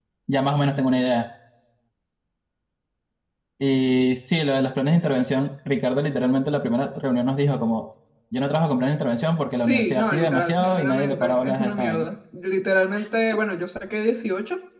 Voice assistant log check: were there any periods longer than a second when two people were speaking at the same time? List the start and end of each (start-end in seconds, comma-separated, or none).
9.6-12.1